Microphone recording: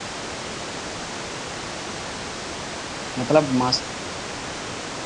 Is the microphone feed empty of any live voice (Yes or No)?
No